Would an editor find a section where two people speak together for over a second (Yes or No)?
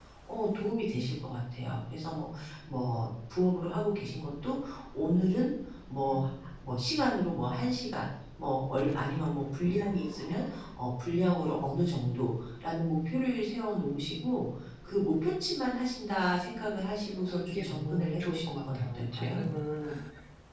Yes